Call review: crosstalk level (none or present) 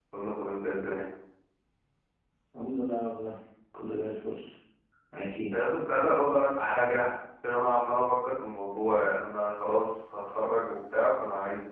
none